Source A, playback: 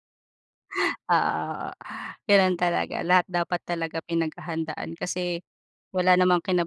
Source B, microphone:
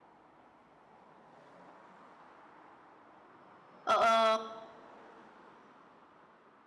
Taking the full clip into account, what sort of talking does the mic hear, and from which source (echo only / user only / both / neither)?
user only